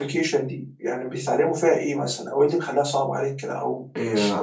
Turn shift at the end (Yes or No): Yes